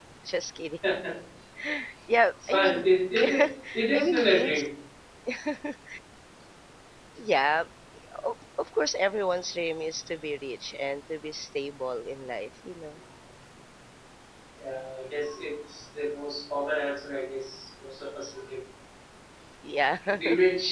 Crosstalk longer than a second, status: present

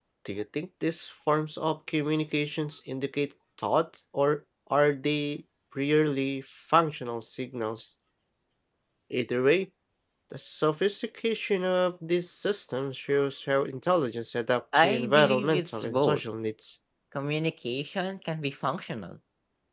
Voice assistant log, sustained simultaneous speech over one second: present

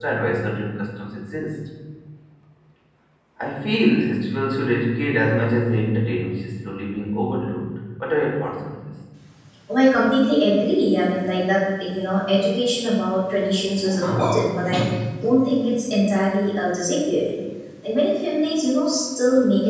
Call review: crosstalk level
none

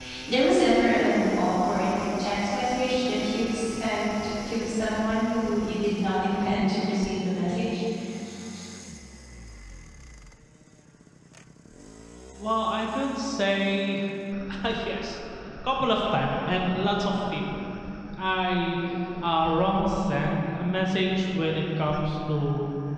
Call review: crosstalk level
none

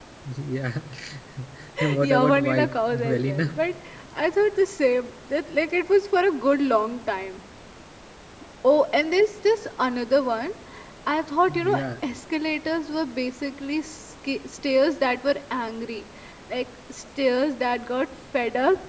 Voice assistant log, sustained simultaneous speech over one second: present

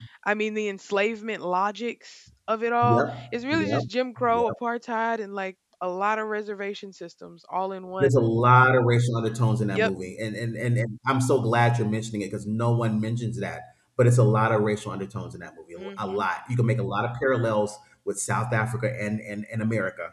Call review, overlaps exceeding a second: none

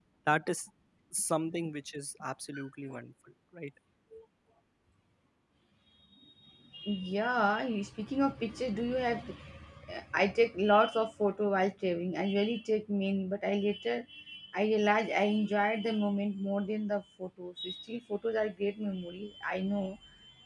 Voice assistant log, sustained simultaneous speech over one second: none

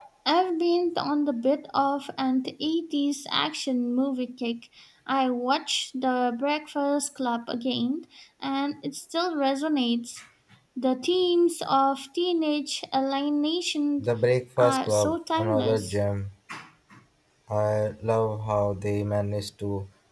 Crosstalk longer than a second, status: present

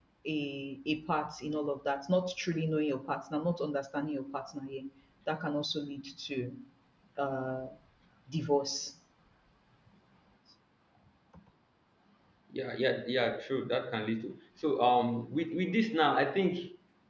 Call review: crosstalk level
none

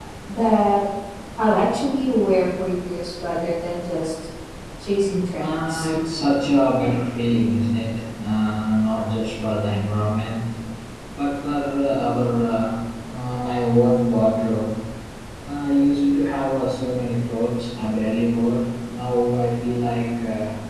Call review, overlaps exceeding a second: none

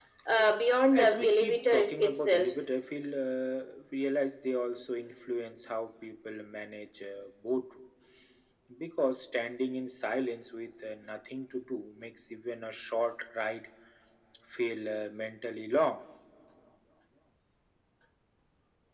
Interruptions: present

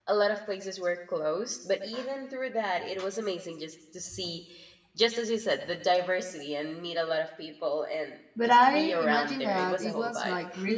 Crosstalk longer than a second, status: present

